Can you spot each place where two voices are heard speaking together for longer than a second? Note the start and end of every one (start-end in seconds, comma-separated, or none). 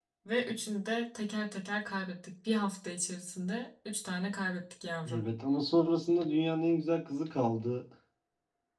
none